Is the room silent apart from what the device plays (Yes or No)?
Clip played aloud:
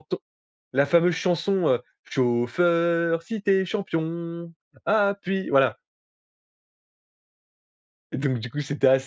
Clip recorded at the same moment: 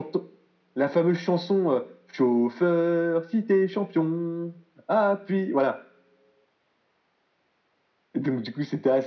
Yes